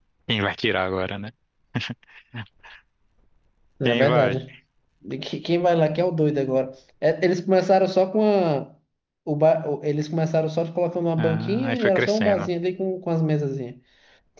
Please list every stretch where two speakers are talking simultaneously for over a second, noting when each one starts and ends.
11.2-12.5

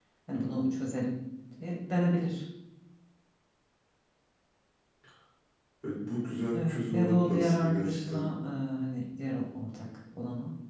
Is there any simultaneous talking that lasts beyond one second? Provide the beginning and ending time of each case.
6.5-8.2

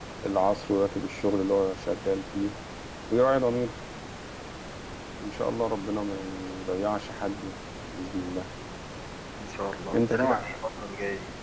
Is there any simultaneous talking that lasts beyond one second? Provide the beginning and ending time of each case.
none

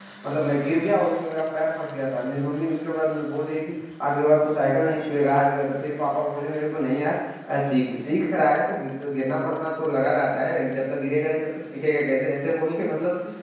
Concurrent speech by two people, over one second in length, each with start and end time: none

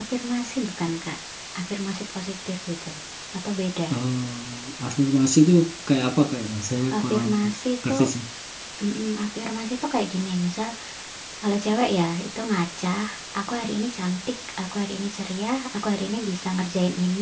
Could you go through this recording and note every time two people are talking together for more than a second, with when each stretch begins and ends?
none

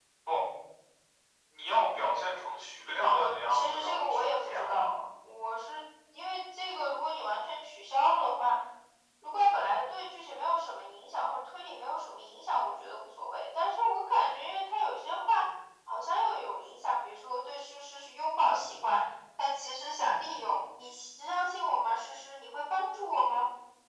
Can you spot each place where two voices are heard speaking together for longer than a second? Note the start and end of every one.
3.0-4.9

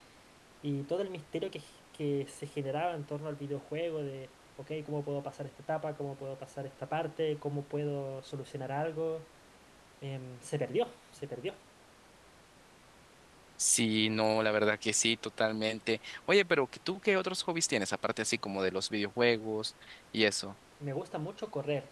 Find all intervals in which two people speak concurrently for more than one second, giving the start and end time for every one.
none

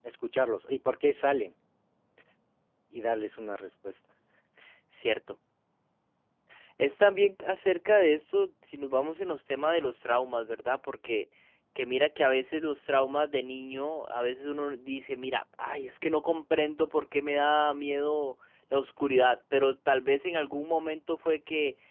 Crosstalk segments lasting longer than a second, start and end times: none

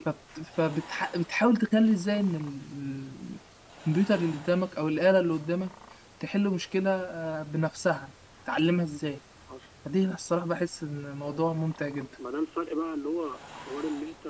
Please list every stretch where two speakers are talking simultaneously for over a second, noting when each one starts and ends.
none

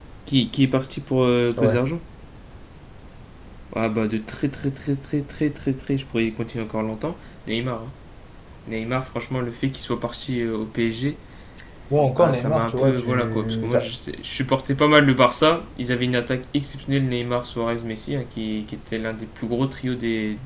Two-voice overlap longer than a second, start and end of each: 12.2-13.9

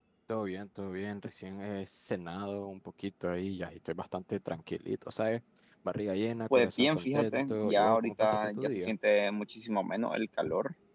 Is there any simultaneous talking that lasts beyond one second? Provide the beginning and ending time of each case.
6.6-8.9

